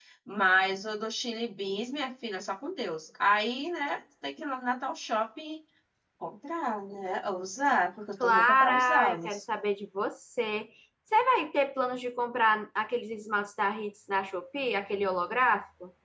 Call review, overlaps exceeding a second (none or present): present